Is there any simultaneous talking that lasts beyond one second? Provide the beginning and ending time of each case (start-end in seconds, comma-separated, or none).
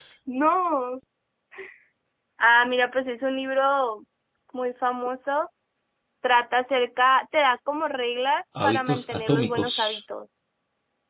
8.6-10.0